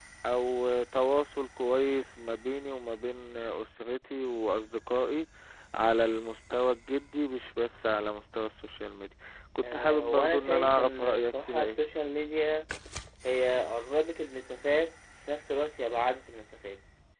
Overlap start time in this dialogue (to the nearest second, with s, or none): 10 s